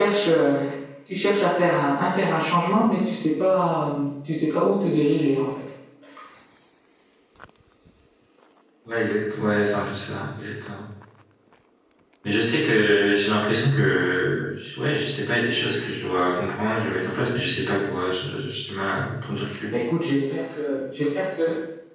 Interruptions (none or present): none